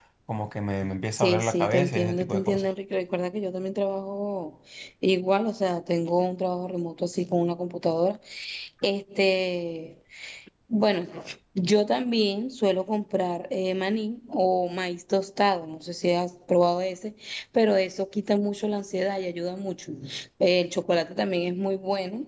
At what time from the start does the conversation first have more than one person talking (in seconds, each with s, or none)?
1.2 s